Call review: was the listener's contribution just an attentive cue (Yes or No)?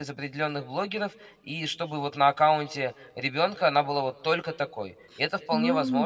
No